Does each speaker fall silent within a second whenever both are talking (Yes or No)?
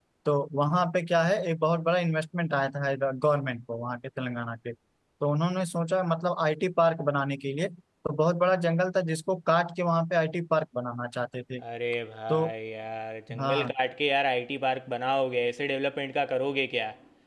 Yes